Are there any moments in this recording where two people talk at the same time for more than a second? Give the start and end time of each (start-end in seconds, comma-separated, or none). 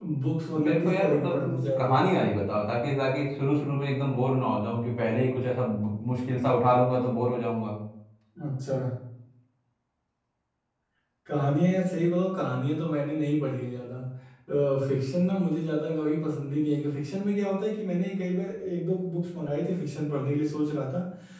0.6-2.1